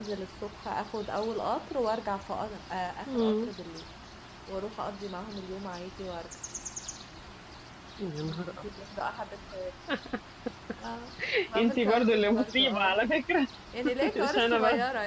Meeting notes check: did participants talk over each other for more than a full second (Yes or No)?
Yes